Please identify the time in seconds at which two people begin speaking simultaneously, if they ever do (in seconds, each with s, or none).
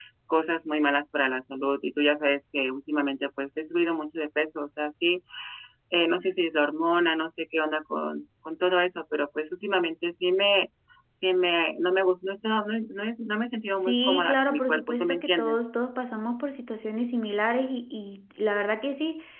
13.9 s